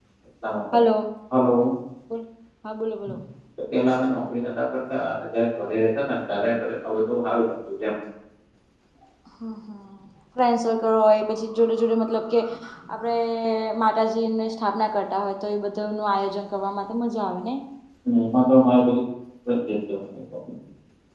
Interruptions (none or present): none